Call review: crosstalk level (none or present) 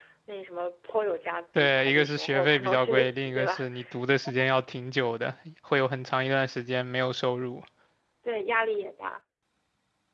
present